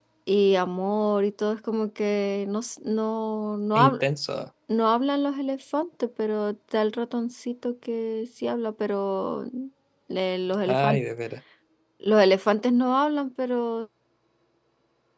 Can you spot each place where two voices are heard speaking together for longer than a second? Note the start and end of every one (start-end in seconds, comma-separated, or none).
none